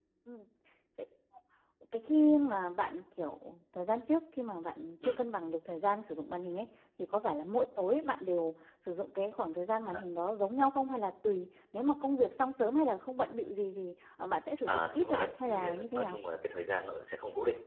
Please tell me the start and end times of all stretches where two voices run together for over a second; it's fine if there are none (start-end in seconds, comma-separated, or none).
14.7-16.2